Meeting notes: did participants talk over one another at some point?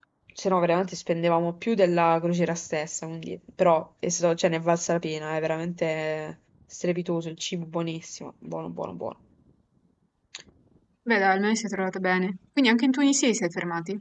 No

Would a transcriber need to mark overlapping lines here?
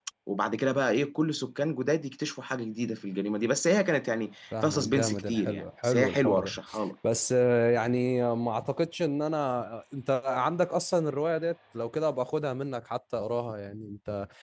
Yes, from 4.5 s

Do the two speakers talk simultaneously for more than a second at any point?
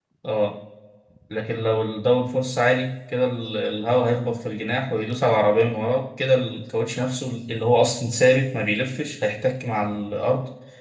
No

